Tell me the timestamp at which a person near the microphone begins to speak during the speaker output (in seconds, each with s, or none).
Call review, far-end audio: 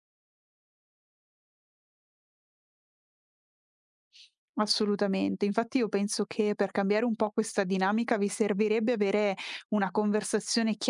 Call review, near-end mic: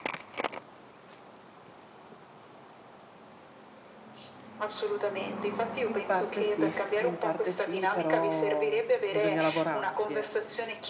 5.8 s